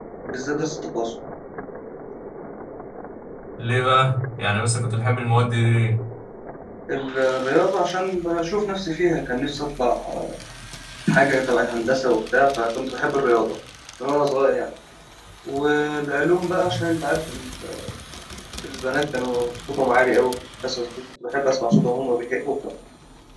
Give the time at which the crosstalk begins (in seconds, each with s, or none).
none